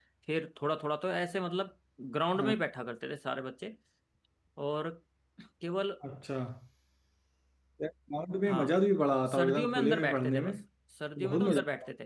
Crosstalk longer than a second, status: present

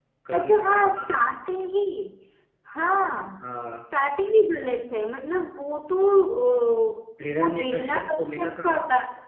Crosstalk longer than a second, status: present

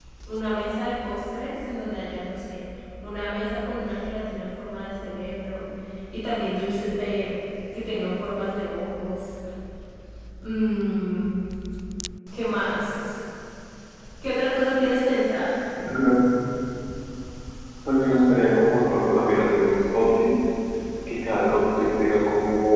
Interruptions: none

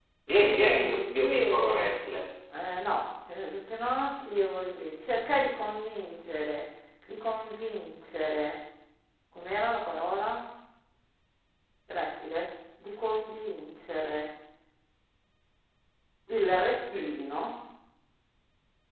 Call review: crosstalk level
present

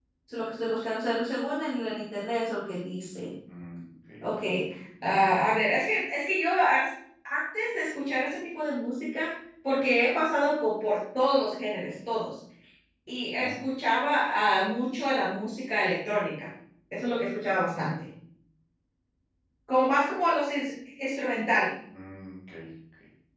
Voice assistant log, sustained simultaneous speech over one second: none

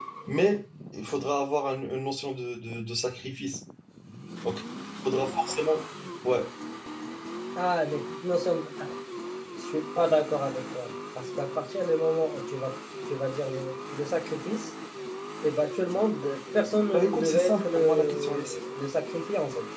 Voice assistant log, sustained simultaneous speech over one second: present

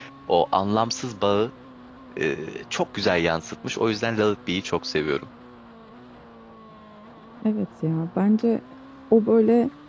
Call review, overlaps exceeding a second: none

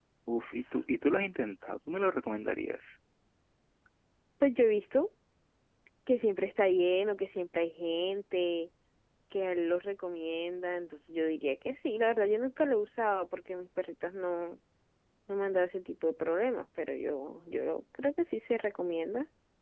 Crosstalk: none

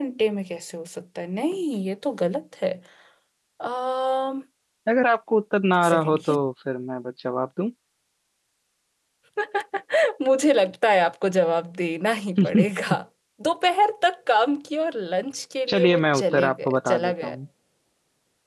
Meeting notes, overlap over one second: present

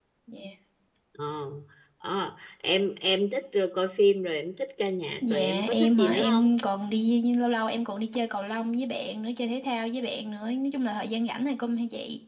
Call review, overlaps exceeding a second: present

